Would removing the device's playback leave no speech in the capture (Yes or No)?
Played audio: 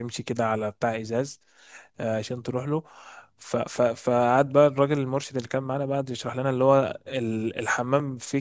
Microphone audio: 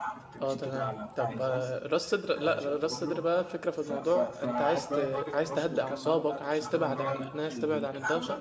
No